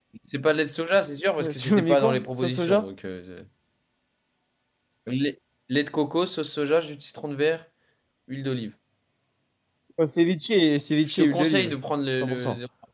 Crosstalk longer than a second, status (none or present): present